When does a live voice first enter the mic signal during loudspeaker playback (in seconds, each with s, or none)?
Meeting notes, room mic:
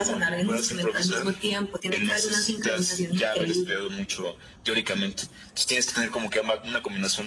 none